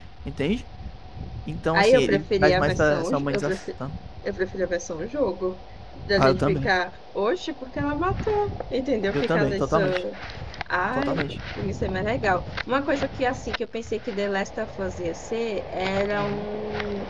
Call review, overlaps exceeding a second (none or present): present